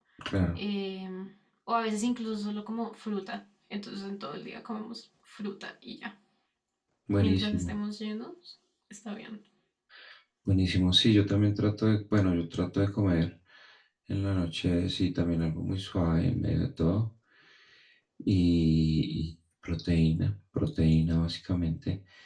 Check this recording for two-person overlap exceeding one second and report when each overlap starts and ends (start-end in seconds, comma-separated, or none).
none